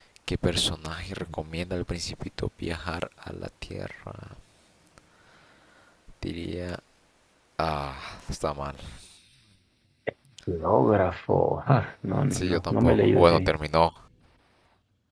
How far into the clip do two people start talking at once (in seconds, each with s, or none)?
12.3 s